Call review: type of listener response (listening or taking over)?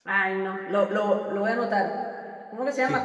taking over